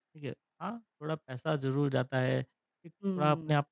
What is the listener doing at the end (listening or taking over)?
listening